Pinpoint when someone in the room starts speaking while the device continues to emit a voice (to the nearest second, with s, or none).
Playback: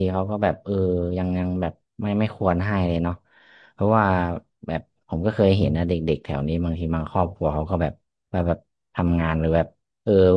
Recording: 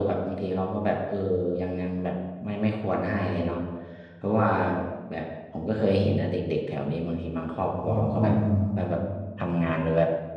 8 s